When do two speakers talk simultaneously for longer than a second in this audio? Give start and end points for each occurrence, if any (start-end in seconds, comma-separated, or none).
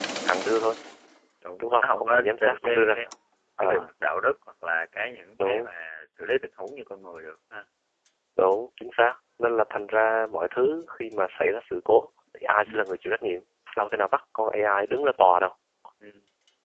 1.6-2.9